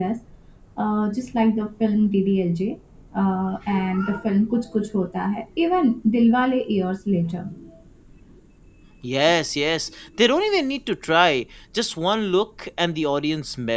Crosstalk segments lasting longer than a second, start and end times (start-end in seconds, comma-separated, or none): none